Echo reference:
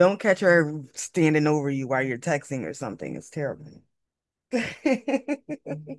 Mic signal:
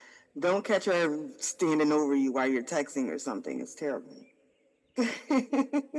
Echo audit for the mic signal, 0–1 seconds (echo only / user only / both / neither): echo only